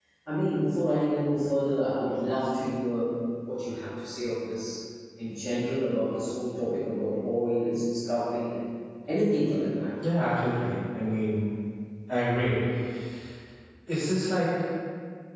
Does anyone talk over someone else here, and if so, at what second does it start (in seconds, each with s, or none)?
none